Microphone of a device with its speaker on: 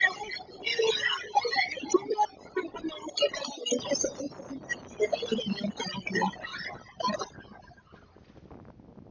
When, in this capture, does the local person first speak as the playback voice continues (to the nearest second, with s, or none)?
none